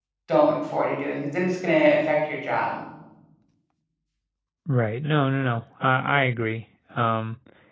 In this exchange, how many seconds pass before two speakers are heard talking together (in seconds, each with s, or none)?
none